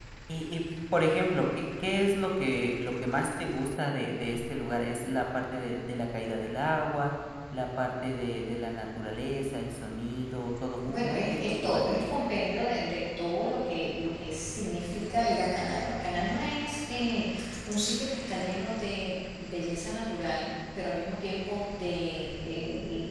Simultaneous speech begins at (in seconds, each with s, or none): 10.9 s